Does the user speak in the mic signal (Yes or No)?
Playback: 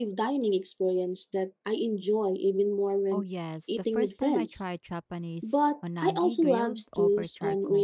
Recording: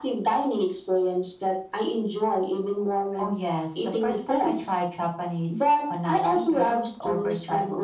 No